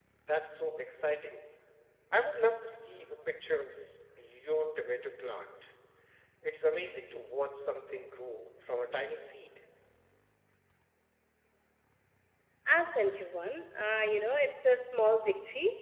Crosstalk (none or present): none